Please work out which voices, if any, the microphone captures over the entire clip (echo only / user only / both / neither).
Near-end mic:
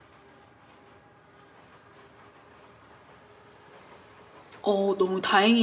user only